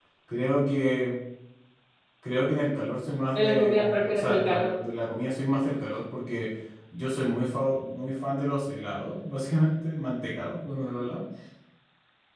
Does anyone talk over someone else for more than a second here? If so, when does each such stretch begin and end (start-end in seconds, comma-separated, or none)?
3.4-4.7